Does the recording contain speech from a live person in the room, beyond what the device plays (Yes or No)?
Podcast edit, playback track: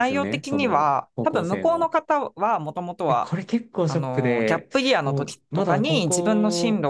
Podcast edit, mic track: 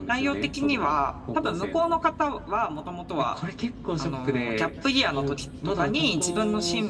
No